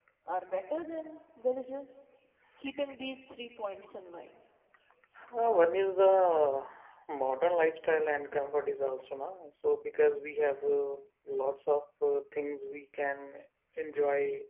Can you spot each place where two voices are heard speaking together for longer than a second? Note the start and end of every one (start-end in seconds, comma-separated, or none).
none